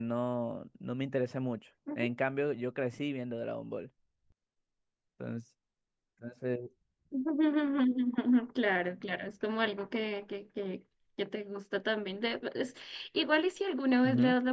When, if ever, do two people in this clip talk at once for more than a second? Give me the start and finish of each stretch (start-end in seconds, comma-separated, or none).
none